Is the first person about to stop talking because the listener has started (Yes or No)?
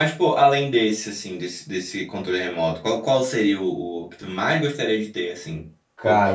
Yes